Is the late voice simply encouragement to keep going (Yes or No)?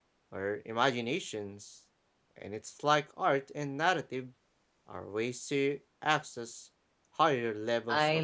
No